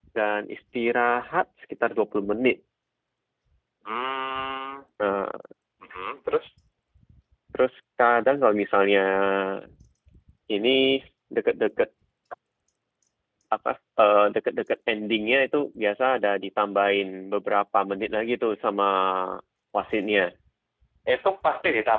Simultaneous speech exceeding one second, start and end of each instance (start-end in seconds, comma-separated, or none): none